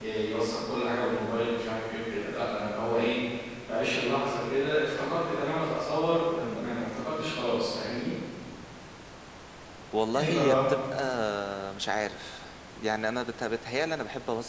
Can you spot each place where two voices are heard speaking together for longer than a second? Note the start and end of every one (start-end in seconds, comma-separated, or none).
none